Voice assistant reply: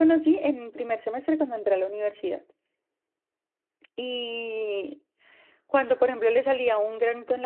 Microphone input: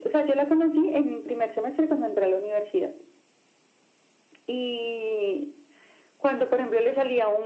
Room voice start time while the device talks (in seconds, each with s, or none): none